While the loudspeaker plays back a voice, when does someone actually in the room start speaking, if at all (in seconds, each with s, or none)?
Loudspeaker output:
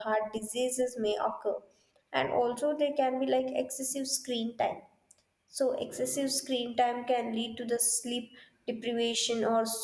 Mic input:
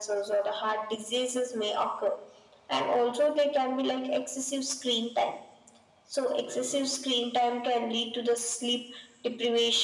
none